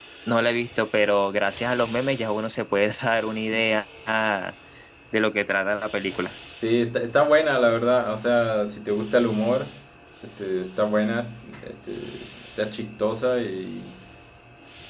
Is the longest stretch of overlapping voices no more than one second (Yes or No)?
Yes